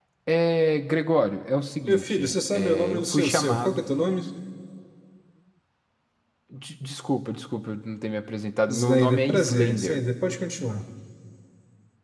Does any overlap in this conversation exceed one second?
Yes, from 1.9 s

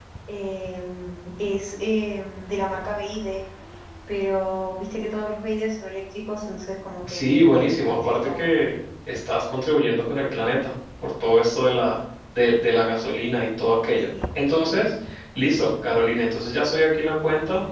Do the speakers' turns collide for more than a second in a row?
Yes, from 7.1 s

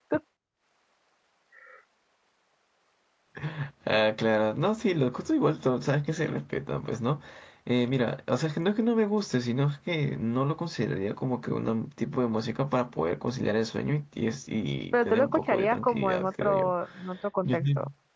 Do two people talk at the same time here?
Yes, from 14.9 s

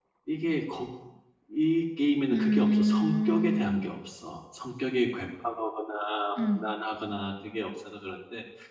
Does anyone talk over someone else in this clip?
Yes, from 2.3 s

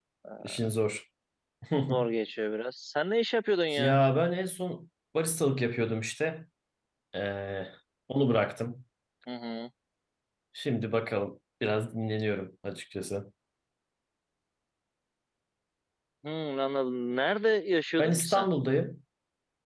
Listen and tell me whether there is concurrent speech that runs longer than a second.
No

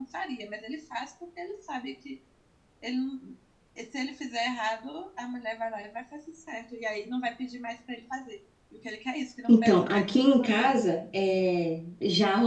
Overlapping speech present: Yes, from 9.5 s

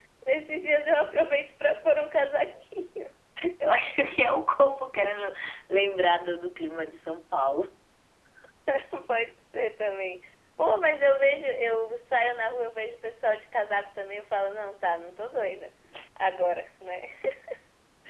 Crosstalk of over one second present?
No

